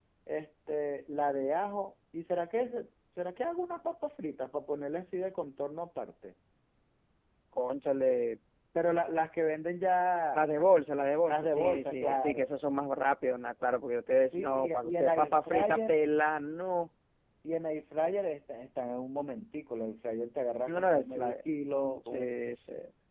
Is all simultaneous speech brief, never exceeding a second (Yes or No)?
No